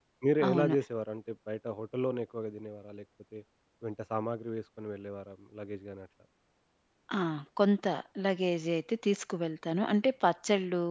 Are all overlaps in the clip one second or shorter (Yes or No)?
Yes